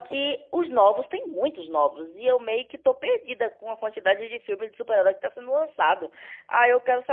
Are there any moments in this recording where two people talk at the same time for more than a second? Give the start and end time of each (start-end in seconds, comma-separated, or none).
none